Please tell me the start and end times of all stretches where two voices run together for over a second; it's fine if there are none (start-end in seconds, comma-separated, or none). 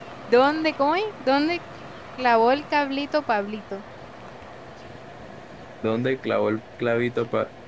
none